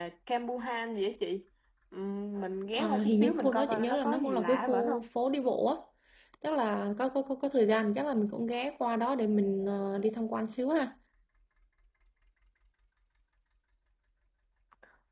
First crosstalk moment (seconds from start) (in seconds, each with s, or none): 2.8 s